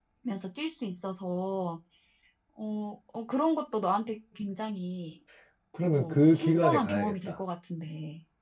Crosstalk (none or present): present